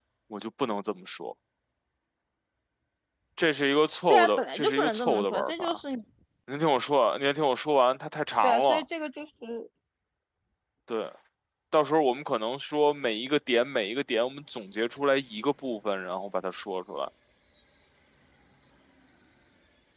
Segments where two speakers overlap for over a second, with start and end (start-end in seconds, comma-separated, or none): 4.1-5.8